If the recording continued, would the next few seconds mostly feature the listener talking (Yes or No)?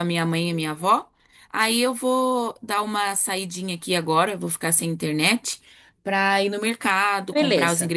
No